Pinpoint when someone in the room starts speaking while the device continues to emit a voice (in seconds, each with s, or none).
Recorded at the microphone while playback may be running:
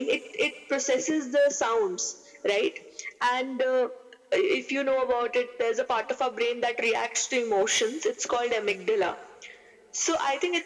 none